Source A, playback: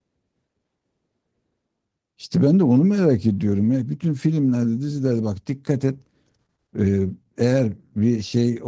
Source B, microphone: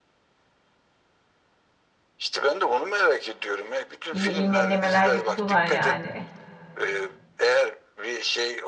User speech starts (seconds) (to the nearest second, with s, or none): 4 s